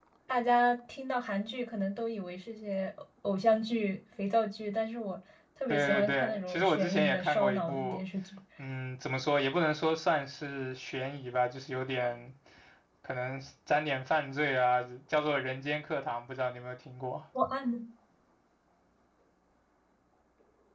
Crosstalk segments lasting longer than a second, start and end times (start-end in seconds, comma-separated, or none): 5.7-8.0